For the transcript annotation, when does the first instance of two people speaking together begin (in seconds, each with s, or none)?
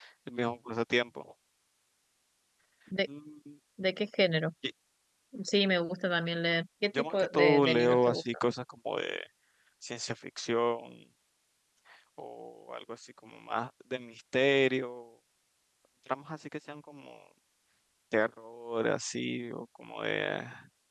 6.9 s